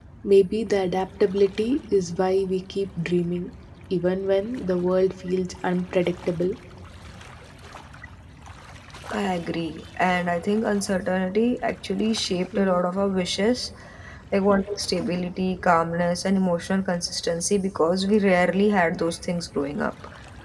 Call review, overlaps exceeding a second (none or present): none